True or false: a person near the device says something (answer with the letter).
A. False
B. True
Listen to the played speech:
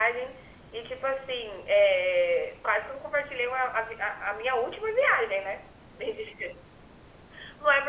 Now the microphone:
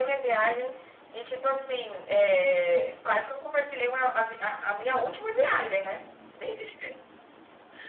A